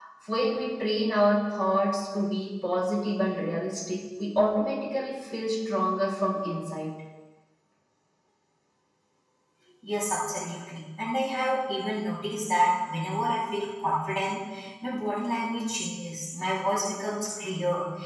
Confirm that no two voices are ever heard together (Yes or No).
Yes